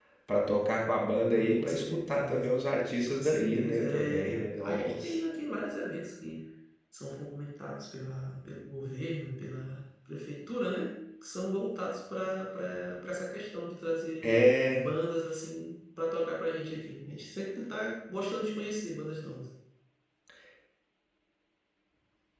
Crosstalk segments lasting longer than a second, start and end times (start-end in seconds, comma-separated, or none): 1.3-2.5, 3.1-5.2